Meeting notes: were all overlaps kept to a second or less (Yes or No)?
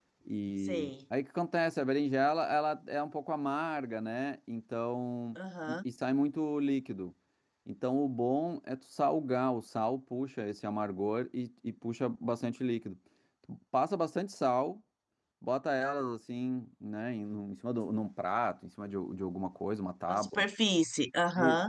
Yes